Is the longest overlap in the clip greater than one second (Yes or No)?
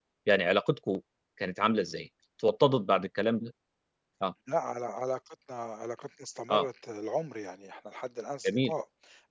No